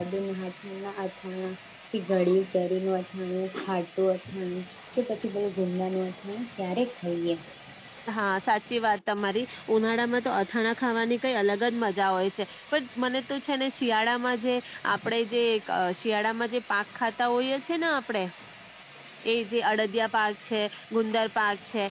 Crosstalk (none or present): none